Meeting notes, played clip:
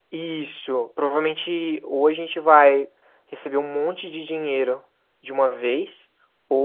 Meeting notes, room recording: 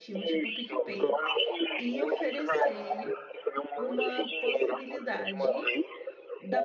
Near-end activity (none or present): present